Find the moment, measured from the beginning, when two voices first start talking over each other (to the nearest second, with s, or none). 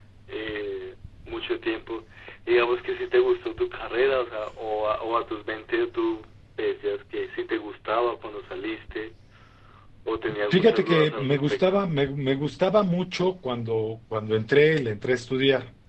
11 s